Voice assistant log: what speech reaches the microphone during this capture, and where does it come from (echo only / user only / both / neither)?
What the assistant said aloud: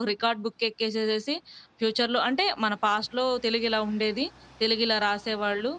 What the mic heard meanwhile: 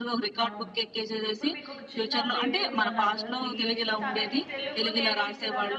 both